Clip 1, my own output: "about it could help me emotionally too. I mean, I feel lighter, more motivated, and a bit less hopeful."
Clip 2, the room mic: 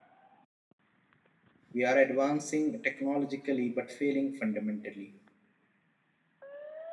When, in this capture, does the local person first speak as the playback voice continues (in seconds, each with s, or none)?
1.7 s